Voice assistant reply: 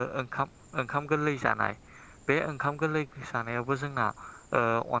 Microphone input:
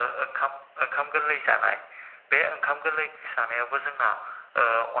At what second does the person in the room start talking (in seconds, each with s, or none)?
none